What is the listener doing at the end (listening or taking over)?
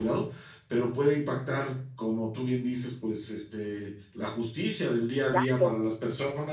listening